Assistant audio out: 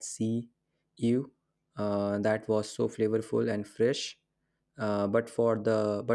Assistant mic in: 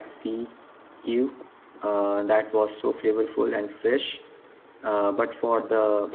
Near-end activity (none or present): none